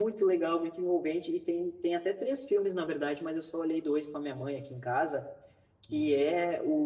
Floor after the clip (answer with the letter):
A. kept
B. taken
A